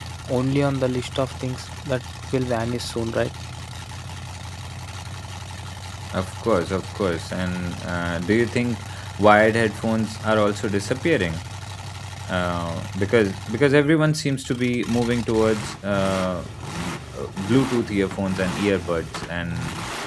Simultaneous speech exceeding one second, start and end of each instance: none

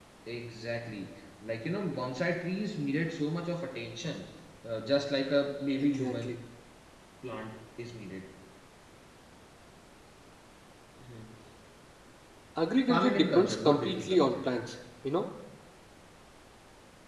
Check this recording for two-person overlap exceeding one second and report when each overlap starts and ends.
12.9-14.4

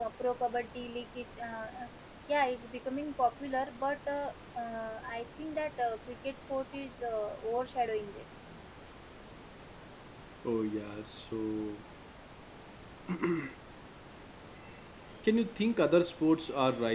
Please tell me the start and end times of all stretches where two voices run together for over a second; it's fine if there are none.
none

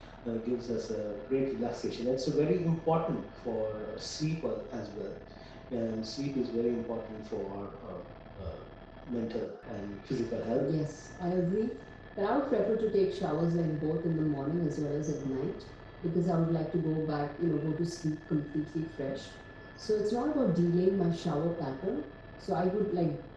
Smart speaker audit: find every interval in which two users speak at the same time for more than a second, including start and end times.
none

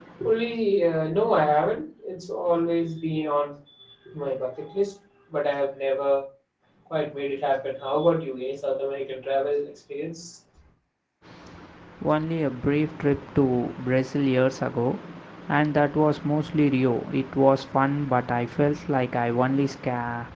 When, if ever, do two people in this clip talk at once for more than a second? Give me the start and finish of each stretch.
none

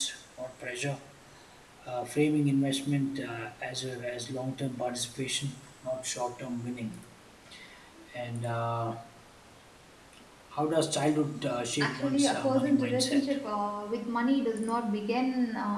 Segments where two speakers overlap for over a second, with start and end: 11.8-13.2

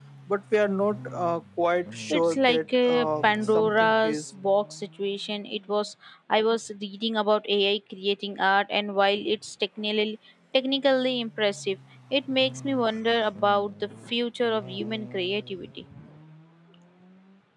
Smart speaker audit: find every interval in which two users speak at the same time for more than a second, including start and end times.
2.1-4.2

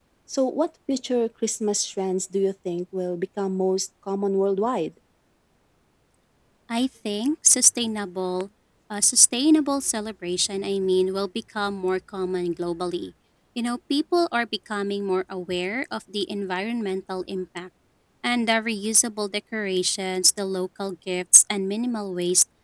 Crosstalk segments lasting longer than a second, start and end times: none

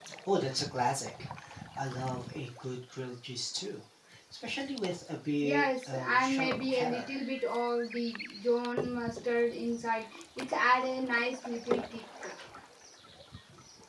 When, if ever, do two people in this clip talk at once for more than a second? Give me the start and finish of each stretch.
5.4-7.2

